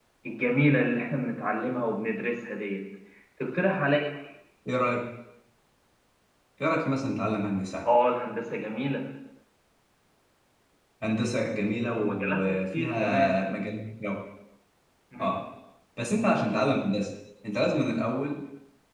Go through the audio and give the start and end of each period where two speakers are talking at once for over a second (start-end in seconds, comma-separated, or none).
12.0-13.3